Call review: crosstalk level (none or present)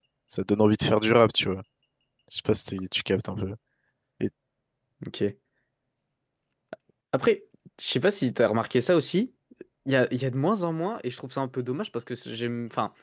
none